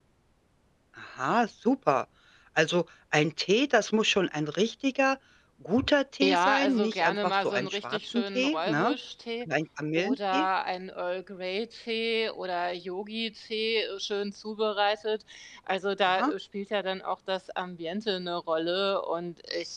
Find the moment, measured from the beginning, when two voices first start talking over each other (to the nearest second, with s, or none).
6 s